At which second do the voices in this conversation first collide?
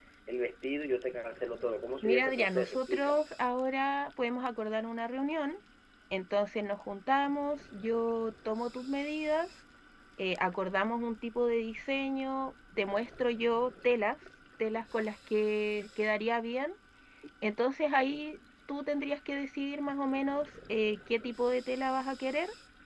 2.0 s

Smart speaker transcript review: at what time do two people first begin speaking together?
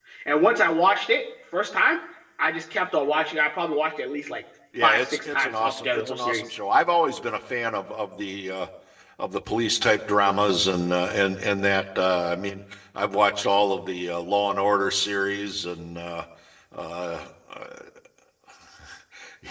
4.7 s

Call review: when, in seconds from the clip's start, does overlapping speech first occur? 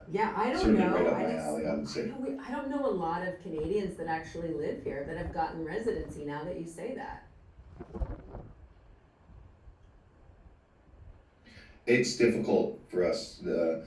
0.5 s

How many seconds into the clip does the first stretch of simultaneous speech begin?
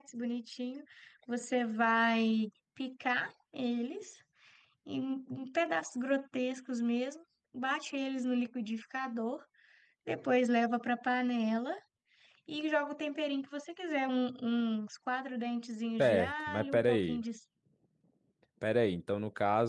16.0 s

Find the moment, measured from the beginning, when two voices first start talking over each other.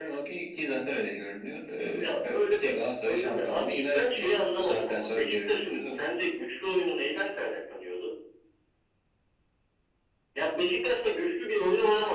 2.0 s

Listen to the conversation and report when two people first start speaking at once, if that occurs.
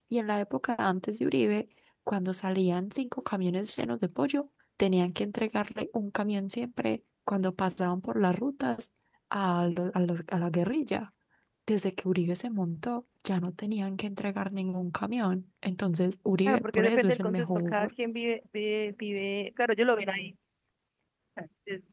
16.5 s

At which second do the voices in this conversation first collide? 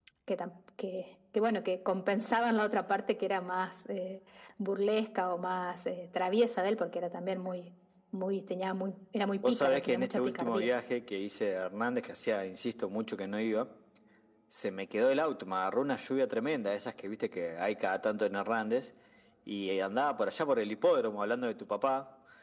9.4 s

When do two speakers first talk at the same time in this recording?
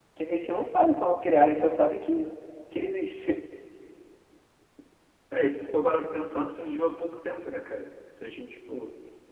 none

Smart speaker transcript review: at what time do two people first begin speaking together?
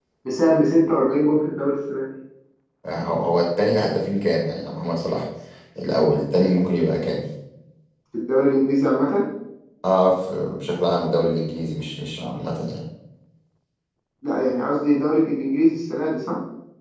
none

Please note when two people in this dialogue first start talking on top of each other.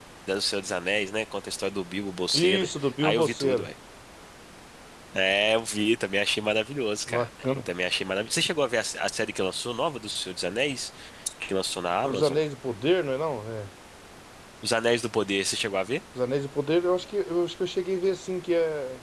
2.3 s

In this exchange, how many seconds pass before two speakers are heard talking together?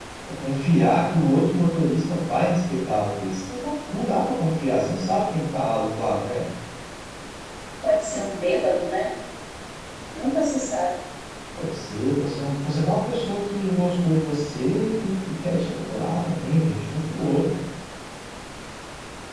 none

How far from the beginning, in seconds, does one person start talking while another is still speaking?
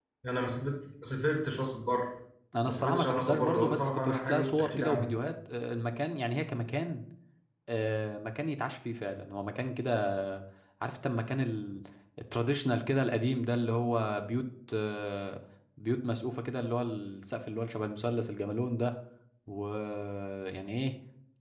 2.6 s

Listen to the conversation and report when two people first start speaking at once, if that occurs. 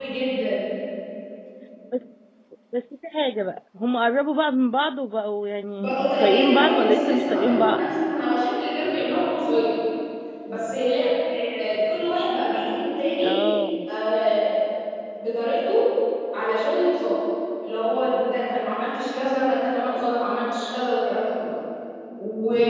5.7 s

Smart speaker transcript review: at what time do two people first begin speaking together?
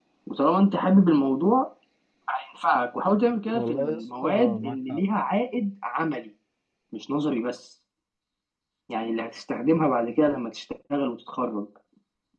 3.5 s

